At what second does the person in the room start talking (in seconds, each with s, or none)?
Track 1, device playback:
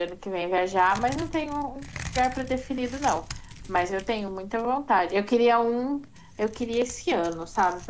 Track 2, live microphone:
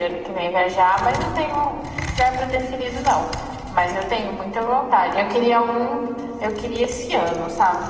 none